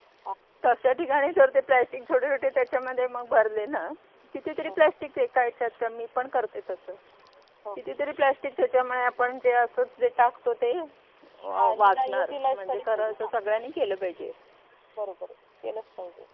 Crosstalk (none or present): present